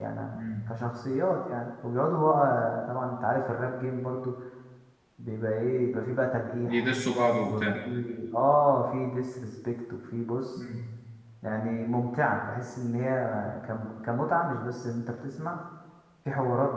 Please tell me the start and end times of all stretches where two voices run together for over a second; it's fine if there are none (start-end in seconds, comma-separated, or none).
none